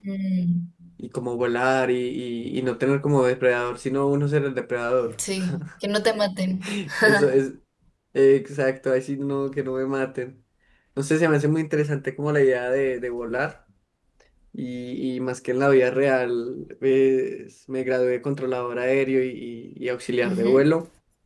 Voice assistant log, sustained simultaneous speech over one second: none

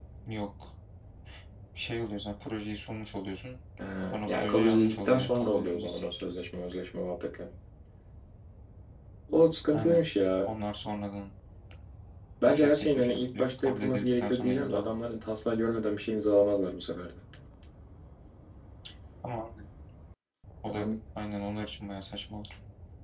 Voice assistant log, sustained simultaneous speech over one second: present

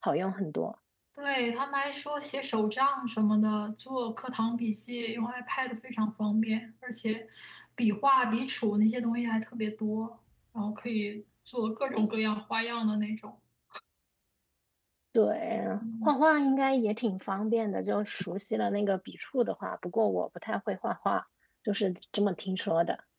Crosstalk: none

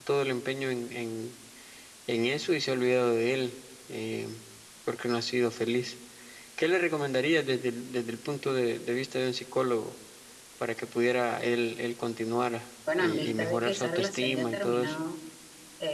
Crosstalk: present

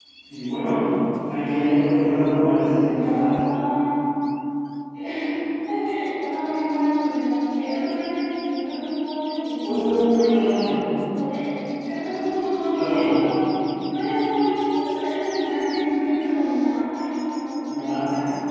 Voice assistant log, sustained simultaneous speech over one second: present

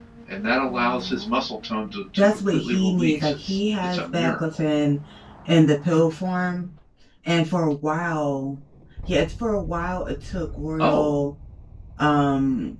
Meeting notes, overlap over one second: present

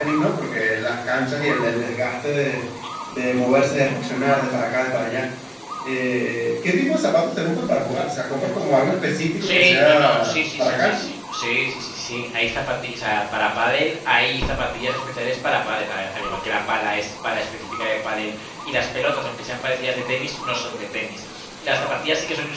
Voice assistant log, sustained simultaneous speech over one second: present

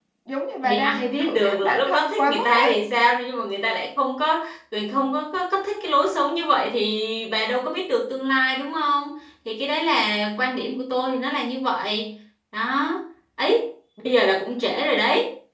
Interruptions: present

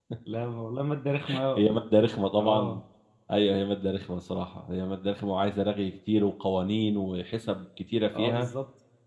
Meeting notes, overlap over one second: none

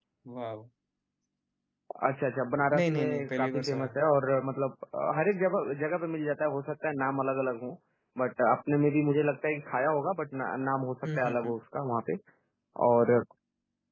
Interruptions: present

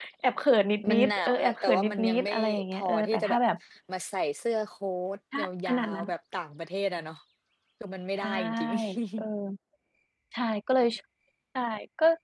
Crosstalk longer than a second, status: present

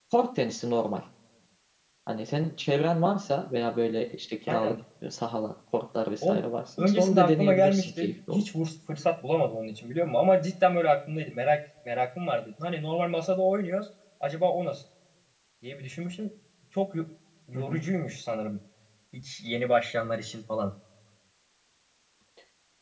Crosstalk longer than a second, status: present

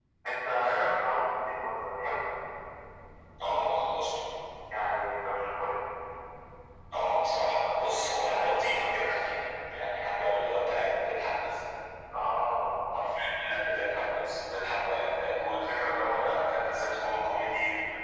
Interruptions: none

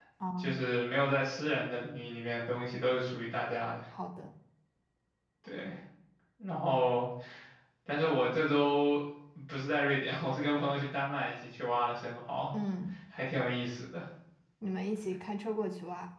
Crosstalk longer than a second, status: none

